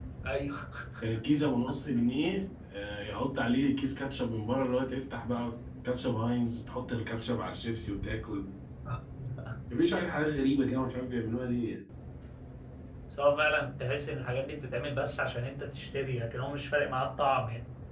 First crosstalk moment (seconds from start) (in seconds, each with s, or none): none